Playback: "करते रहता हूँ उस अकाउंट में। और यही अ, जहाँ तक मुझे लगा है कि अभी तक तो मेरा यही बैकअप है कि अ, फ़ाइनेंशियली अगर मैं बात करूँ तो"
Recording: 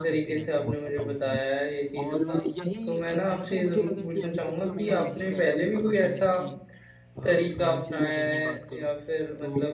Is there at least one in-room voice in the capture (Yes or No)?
Yes